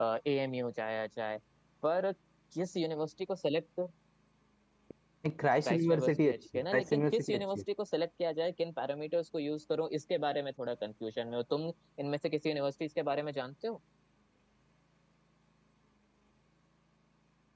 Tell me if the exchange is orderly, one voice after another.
No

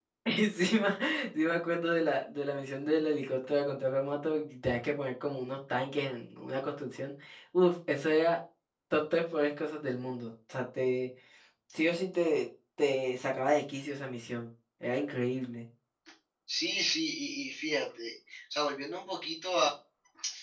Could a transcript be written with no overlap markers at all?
Yes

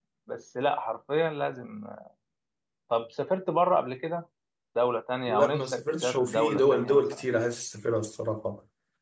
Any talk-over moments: Yes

